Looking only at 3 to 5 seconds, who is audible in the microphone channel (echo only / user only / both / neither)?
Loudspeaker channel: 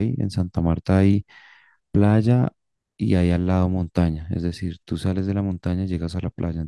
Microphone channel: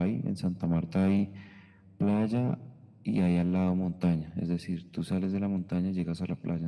echo only